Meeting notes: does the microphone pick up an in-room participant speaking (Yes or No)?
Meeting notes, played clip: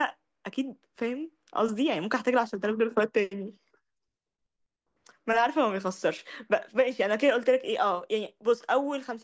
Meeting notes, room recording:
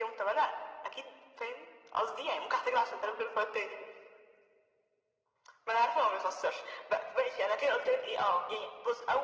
No